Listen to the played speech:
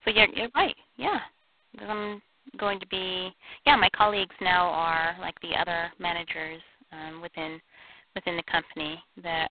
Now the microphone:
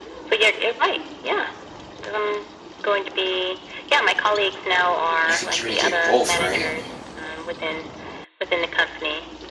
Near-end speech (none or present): present